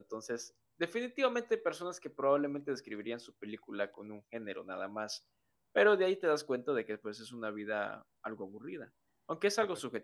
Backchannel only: Yes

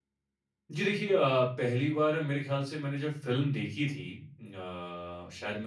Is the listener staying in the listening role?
Yes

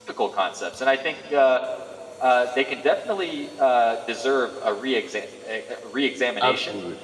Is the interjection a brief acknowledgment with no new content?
Yes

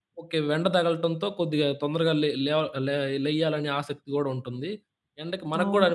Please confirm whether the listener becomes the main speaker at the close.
No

